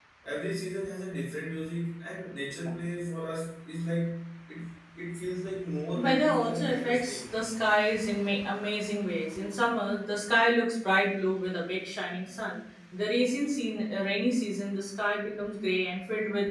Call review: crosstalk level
present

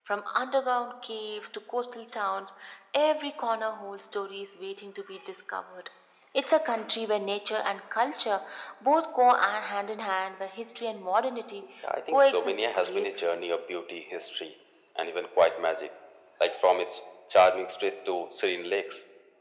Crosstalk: present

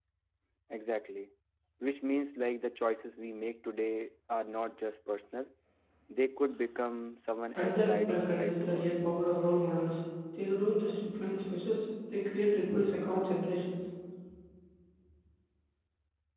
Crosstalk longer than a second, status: present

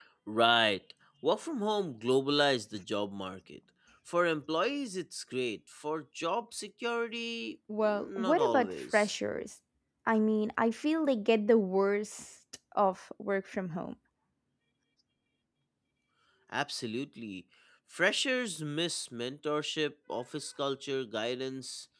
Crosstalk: present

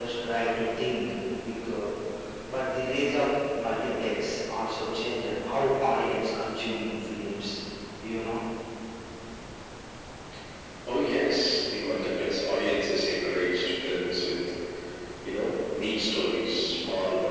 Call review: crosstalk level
none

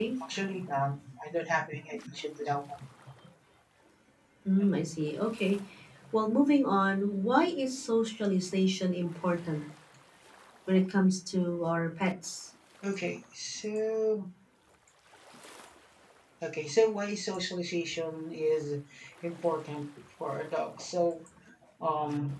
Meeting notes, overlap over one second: none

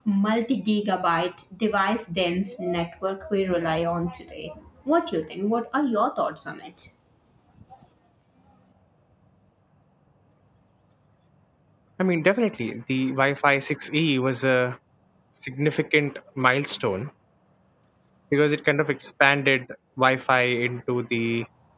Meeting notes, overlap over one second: none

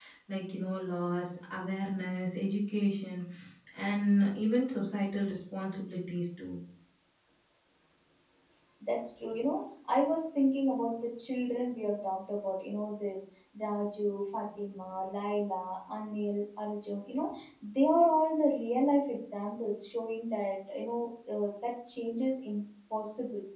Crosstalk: none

